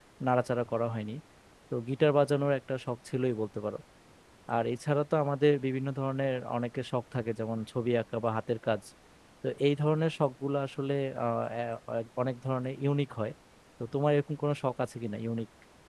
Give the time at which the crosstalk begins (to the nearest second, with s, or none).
none